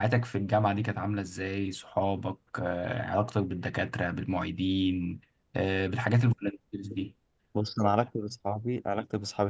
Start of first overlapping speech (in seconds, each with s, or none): none